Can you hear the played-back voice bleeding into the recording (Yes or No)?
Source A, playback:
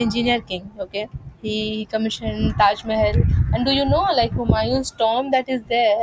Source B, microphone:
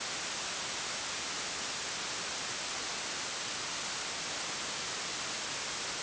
No